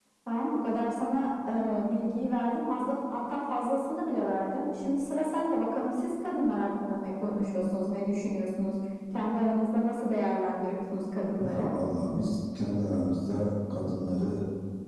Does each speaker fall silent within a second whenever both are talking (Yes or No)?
Yes